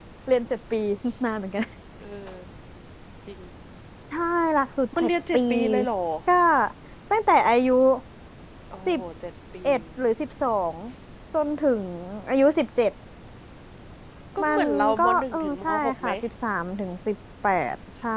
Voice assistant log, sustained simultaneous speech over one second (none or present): present